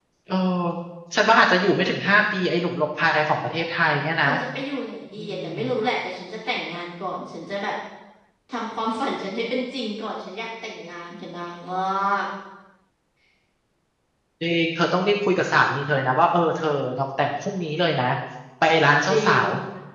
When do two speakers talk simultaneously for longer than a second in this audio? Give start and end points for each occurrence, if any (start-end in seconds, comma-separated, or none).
none